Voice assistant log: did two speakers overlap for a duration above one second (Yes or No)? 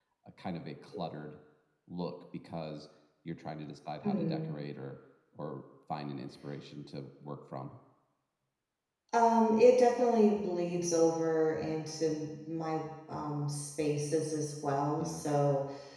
No